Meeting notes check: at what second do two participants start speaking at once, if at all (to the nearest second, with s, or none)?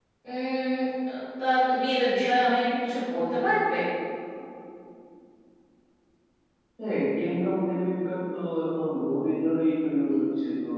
none